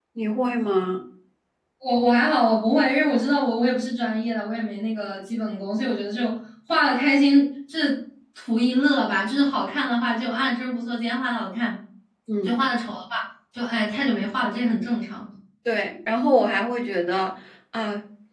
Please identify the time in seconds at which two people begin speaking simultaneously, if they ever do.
none

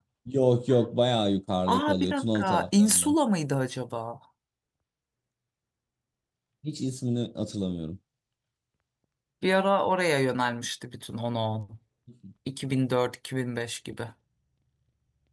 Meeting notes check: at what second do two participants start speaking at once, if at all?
1.7 s

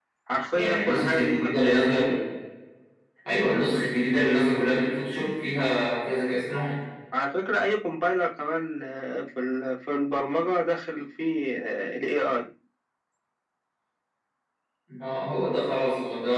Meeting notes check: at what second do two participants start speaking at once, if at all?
0.5 s

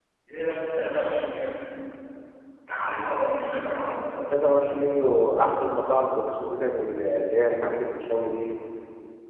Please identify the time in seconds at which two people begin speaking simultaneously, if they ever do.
none

